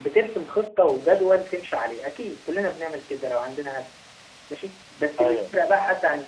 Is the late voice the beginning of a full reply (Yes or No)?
No